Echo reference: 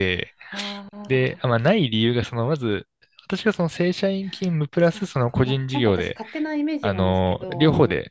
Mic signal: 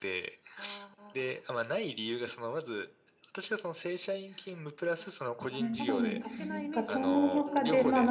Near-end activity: present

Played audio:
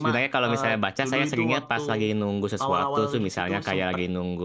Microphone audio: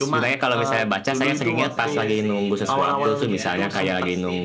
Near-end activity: present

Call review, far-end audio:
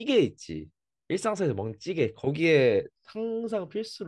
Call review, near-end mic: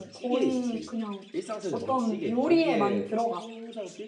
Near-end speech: present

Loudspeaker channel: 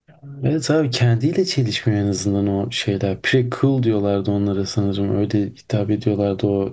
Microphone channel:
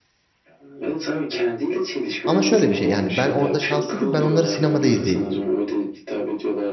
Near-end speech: present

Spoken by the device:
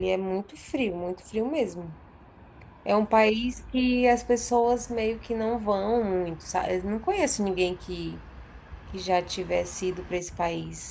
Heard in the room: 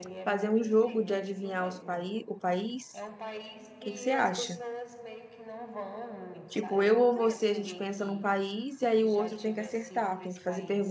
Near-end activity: present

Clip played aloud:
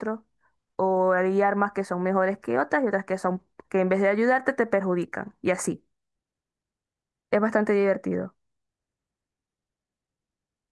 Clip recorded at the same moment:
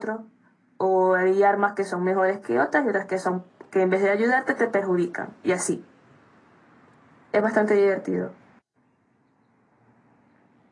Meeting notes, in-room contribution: none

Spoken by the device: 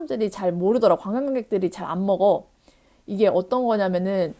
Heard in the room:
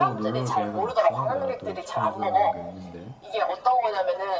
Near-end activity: present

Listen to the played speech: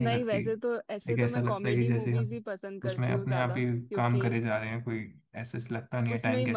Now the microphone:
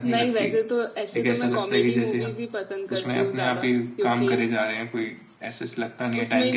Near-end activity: none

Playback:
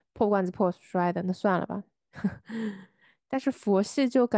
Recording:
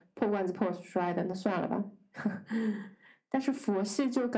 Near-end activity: none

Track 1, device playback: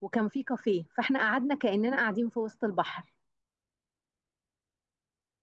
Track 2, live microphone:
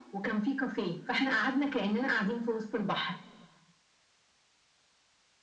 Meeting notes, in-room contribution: none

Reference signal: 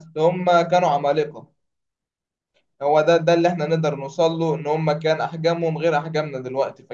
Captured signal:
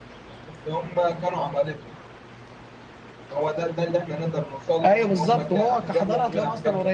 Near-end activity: present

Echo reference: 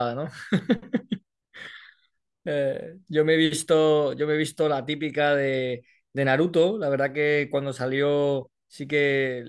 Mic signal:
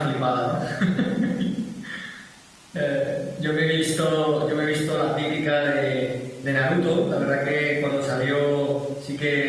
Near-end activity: none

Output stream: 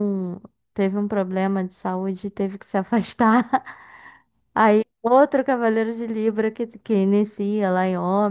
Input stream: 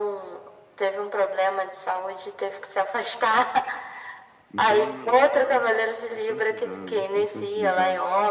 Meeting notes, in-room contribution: present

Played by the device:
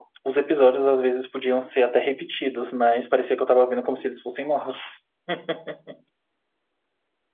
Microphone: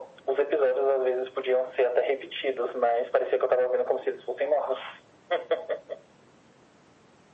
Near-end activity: none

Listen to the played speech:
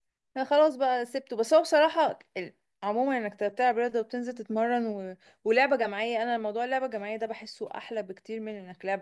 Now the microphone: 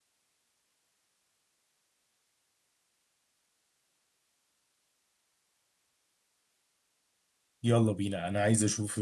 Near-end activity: present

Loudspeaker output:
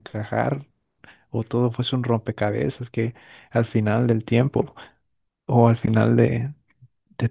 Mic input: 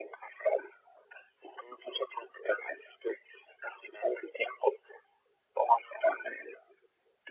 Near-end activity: none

